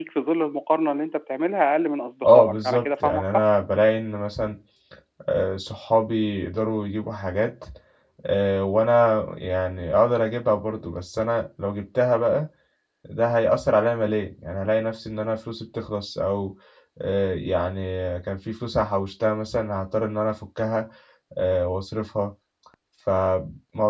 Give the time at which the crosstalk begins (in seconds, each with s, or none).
2.2 s